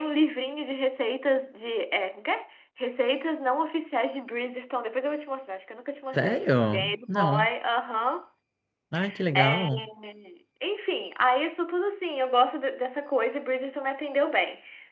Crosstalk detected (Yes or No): Yes